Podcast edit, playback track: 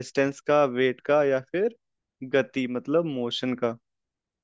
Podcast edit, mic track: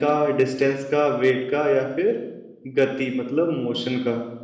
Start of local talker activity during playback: none

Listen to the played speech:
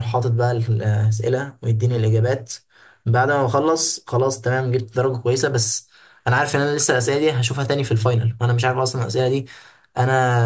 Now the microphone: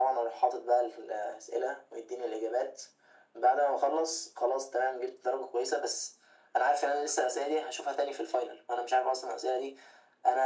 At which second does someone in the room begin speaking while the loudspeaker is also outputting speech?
none

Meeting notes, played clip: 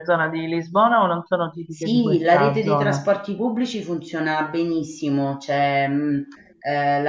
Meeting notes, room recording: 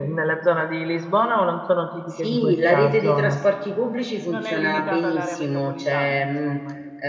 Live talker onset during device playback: 4.3 s

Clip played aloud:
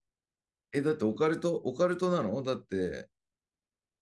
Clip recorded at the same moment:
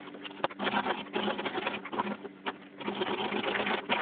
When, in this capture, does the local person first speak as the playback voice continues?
none

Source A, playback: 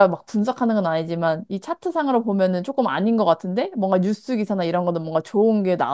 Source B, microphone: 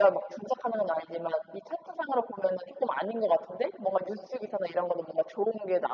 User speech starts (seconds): none

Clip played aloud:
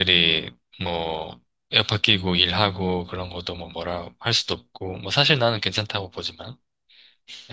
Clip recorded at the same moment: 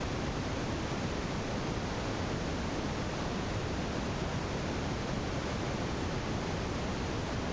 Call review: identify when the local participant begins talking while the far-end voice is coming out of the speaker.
none

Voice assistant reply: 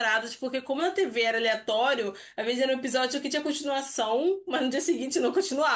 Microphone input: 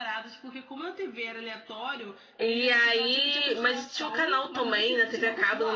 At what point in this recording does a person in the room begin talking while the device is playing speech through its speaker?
2.4 s

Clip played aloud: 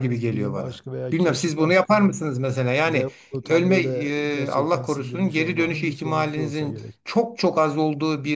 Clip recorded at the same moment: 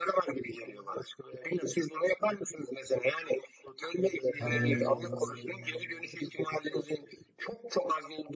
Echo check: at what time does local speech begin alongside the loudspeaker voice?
4.4 s

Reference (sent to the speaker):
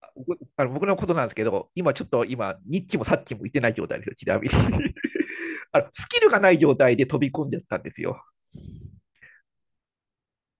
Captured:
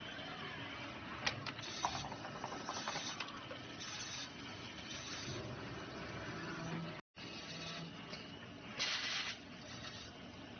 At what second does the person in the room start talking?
none

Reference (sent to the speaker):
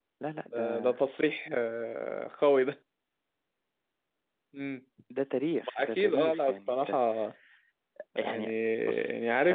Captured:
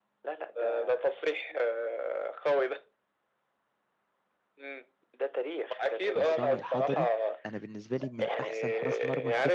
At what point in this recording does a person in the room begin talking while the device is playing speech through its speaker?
6.2 s

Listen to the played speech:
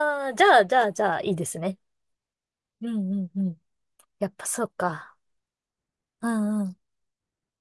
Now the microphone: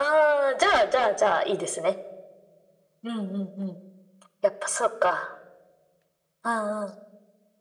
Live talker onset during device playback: none

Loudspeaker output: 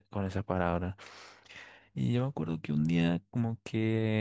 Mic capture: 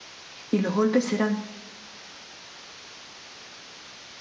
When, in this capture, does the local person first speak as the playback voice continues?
0.5 s

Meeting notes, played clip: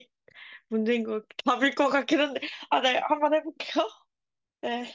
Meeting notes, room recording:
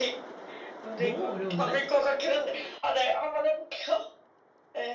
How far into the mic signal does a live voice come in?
0.9 s

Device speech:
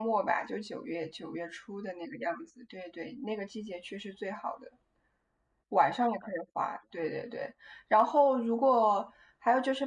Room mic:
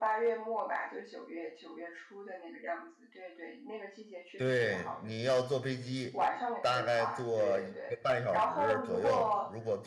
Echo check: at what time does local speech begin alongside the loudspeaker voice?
4.3 s

